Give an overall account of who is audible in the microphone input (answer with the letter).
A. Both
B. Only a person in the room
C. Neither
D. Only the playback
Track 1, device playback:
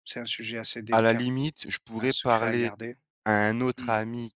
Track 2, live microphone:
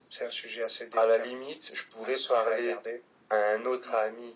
D